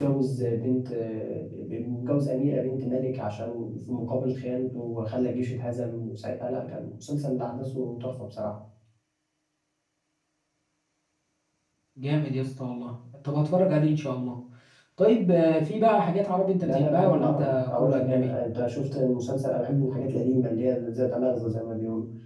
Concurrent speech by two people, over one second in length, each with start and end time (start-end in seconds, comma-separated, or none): 16.6-18.3